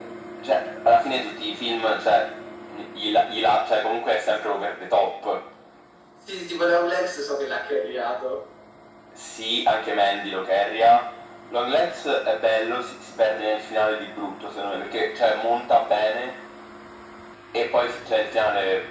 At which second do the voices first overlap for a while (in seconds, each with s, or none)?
none